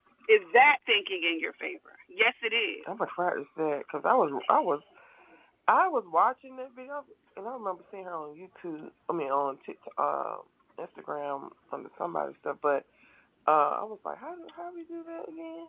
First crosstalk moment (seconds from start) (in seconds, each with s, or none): none